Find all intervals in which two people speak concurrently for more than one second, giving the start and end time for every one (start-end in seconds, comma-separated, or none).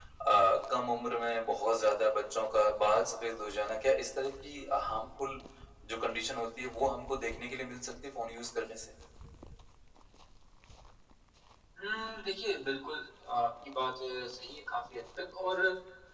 none